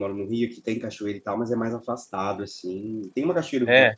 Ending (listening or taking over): listening